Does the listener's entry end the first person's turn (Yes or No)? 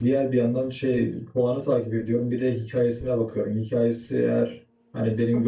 No